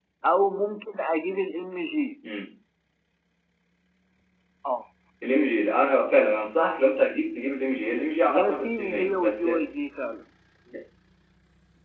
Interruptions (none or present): present